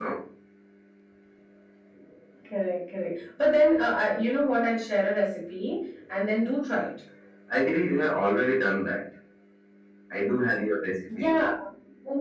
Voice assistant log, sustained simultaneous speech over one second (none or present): none